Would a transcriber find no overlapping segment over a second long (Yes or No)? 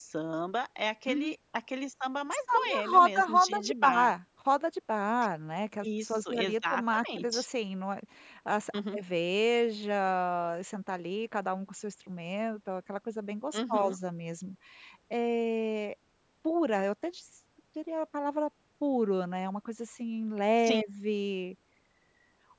No